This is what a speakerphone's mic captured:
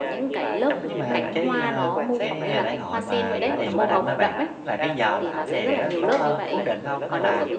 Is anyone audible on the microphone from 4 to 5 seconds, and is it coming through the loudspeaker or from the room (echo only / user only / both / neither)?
both